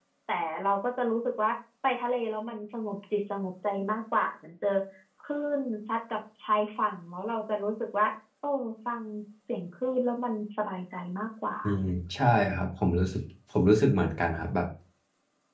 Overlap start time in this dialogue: none

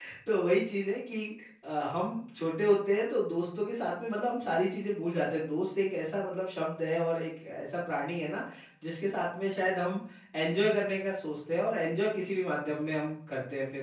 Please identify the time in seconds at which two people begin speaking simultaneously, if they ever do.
none

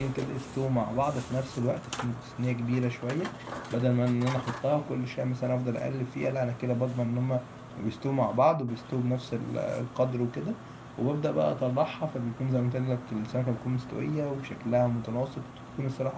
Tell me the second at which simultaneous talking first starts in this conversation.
none

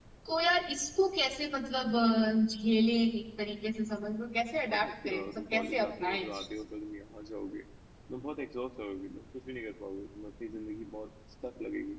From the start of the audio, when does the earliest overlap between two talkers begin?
4.6 s

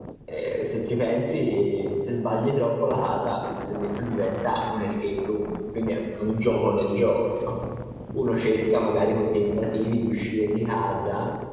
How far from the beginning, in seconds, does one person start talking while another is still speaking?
none

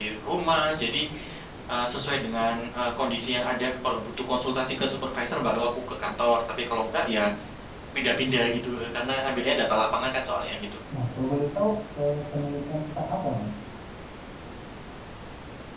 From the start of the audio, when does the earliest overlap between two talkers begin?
none

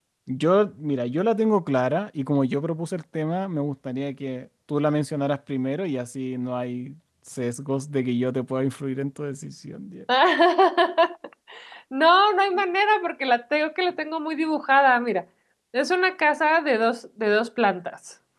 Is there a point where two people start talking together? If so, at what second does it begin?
none

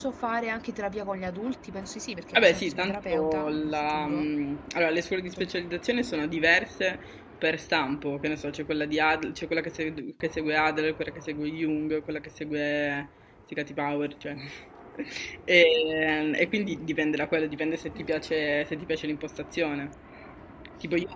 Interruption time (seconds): 2.3 s

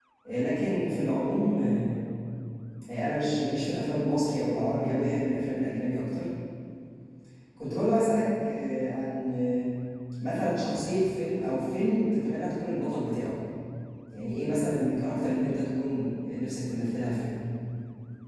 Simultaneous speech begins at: none

